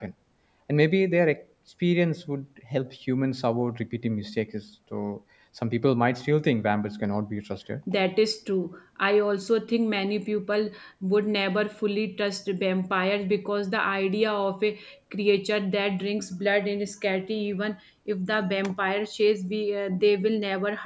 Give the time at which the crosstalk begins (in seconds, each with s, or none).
none